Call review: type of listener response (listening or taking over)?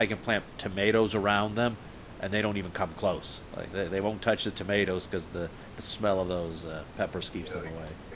taking over